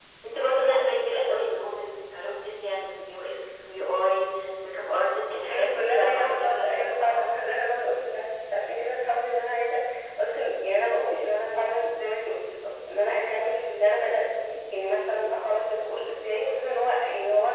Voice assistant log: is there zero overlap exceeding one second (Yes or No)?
No